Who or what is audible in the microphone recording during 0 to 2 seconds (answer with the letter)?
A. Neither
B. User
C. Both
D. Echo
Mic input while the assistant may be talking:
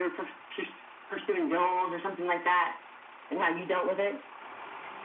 D